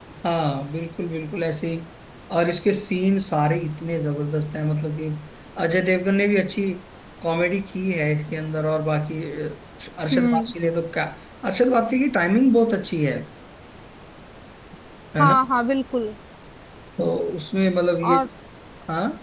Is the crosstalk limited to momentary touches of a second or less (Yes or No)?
Yes